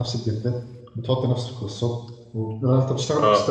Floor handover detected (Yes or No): No